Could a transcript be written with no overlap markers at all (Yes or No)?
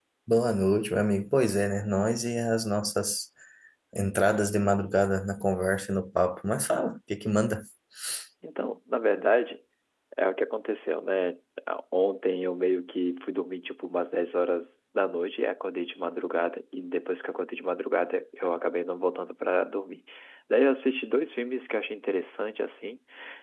Yes